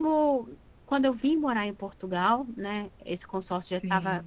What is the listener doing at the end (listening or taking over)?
listening